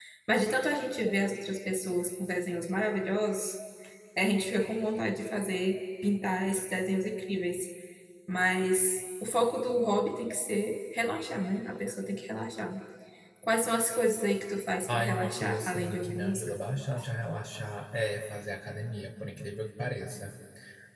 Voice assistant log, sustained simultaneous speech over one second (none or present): present